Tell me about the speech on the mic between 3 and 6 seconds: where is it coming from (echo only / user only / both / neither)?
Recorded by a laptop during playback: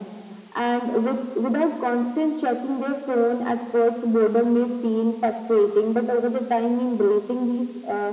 echo only